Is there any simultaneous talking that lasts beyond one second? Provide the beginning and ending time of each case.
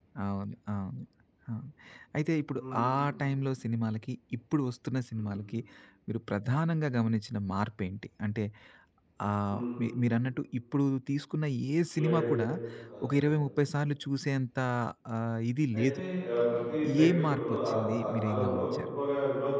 17.0-18.8

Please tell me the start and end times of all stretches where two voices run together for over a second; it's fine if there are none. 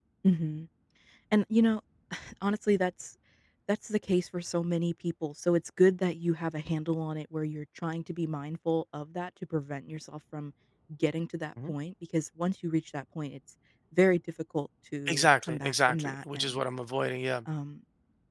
15.1-16.6

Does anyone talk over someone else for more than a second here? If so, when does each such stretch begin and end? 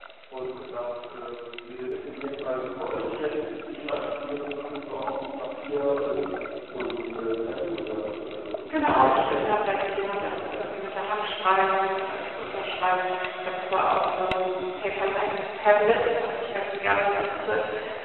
8.7-10.8

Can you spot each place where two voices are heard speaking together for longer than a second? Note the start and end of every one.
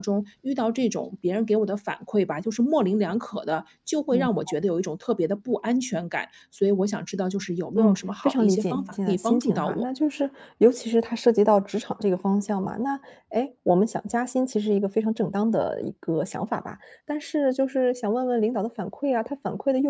7.8-9.8

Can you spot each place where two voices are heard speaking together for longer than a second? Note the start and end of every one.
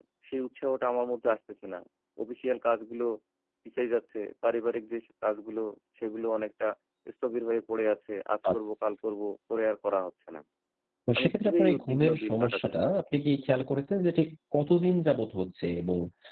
11.2-12.8

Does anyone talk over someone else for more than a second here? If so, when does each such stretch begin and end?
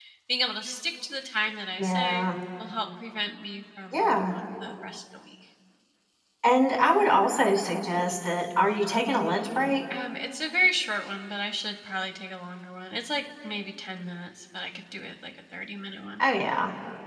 none

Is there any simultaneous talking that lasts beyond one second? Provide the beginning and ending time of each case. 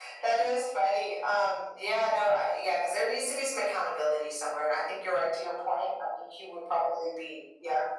none

